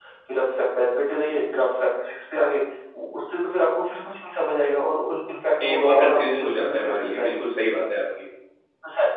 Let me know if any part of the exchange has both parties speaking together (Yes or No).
Yes